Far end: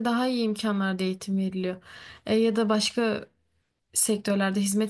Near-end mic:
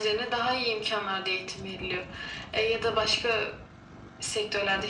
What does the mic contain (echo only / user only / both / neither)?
echo only